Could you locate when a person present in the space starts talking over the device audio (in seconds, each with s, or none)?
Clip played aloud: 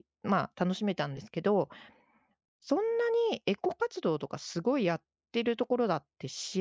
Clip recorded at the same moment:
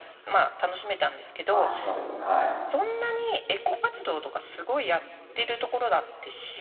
1.5 s